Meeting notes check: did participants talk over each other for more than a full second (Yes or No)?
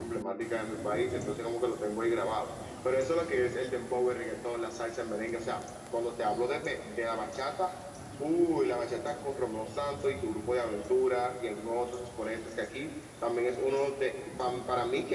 No